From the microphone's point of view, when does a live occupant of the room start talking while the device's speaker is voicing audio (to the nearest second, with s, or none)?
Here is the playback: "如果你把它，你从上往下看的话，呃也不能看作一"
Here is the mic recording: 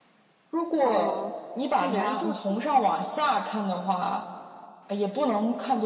1 s